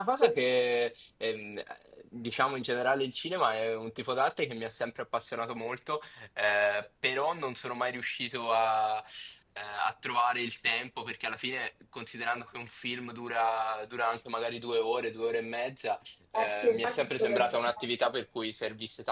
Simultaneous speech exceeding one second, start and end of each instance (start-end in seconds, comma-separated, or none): 16.4-17.9